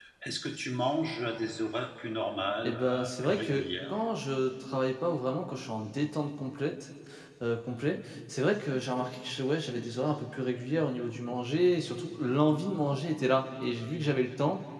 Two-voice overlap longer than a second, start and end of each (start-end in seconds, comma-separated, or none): 2.6-3.9